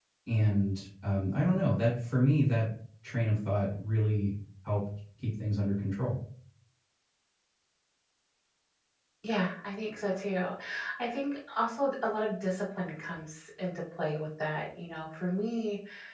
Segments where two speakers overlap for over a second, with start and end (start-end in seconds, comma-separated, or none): none